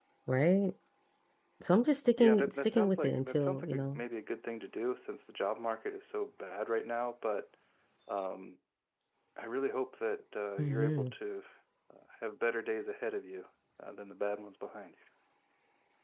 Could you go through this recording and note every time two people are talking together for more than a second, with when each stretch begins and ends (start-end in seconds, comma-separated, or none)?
2.2-4.0